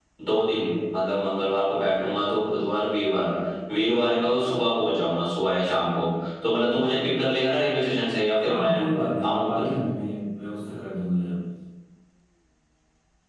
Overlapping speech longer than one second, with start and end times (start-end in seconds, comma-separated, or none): none